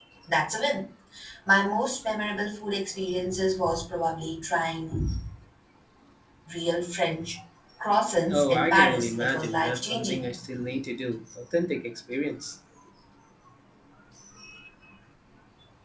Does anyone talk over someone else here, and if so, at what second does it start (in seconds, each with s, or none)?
8.3 s